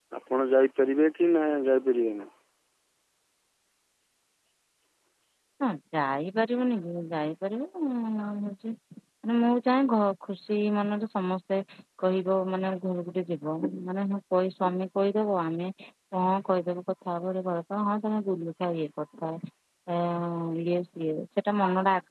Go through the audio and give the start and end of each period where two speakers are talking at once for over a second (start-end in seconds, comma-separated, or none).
none